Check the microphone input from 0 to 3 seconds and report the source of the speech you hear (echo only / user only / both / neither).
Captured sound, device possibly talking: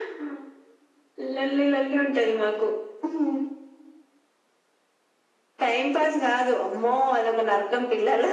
echo only